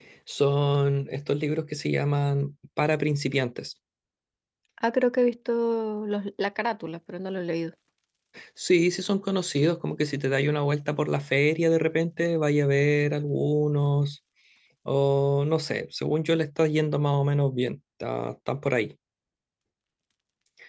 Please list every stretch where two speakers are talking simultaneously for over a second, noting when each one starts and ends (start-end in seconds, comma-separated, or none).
none